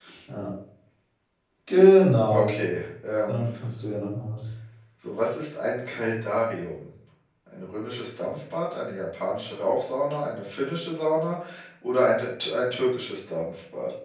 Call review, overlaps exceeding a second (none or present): none